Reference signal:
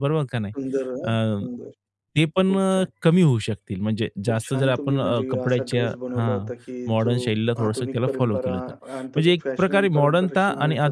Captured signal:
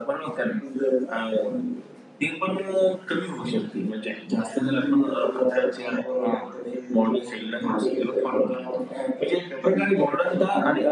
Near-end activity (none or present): none